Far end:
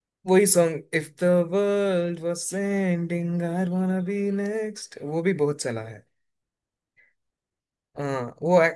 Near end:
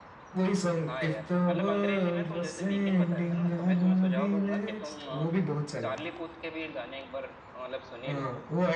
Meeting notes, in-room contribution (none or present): present